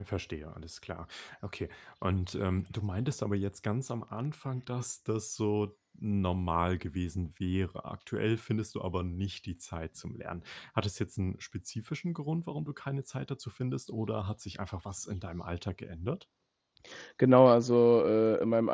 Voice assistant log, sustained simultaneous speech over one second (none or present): none